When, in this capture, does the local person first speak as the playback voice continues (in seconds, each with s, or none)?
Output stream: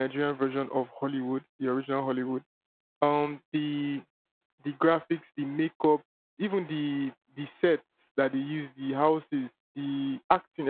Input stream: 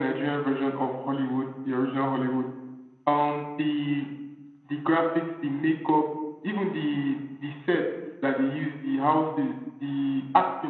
none